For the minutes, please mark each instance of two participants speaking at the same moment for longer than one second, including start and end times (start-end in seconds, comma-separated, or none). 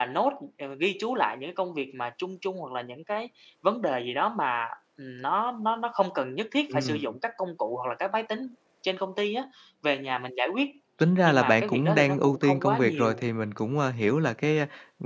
11.2-13.2